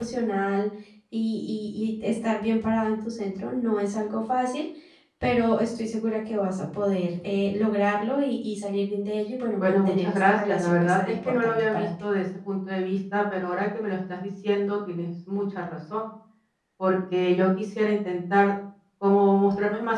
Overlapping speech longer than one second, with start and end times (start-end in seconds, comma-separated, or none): 9.6-11.9